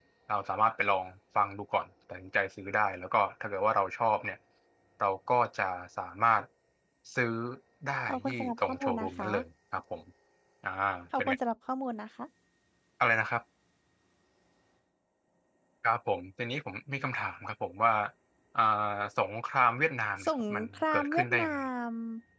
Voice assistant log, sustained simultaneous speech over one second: present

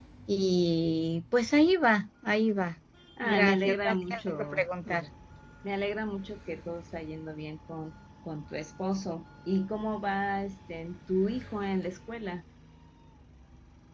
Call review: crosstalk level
present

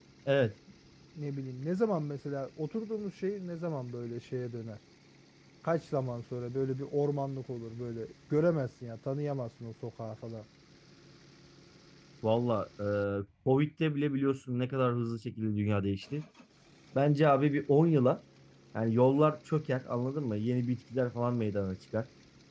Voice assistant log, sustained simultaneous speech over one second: none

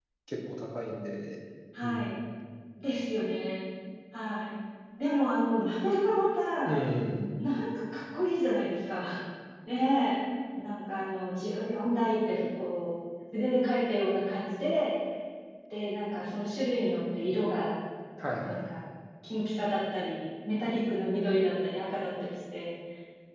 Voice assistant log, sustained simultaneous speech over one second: none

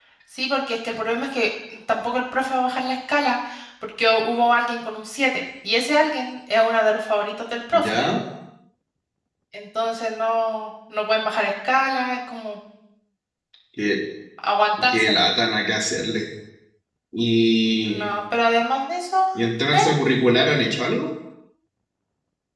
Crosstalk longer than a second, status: none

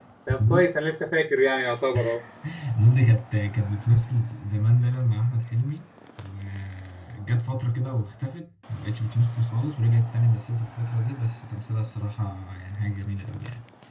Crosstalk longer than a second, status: none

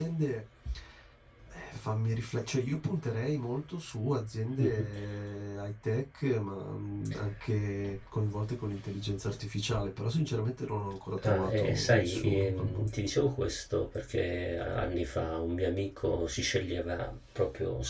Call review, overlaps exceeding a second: present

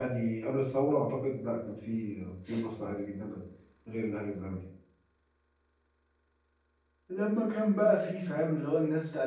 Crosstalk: none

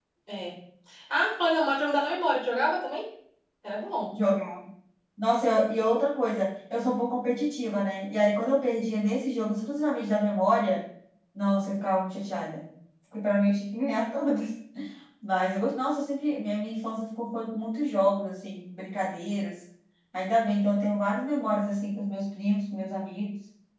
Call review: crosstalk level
none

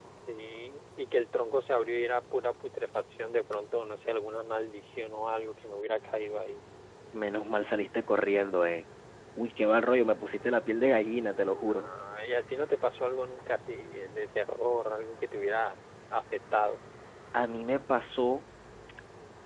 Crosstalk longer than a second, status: none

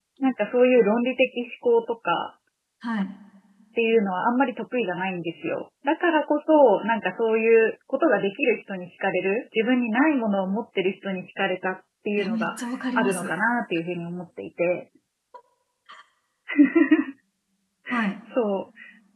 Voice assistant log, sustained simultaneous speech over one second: none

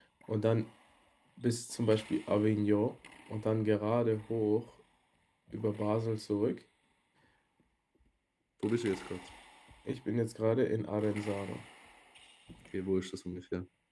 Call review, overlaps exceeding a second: none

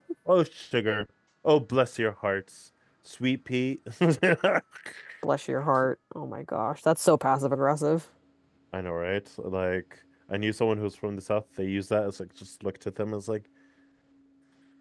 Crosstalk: none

